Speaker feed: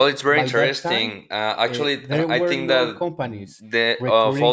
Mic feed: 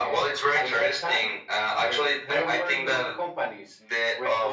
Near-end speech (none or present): none